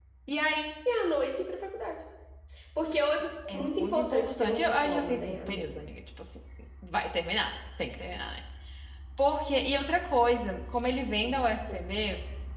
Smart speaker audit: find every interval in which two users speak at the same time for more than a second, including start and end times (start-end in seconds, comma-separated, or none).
3.5-5.7